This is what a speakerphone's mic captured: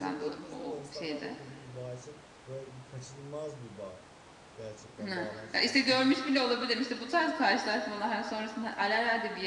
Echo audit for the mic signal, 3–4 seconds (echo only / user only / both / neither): user only